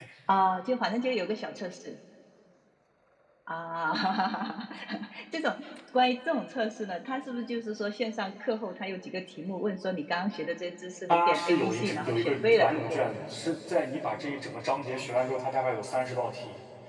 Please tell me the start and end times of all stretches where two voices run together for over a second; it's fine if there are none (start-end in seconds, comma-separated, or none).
11.1-13.0